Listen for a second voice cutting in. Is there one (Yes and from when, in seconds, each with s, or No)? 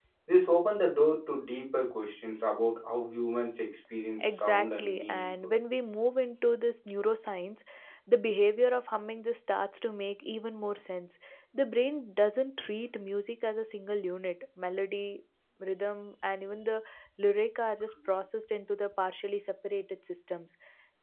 Yes, from 4.2 s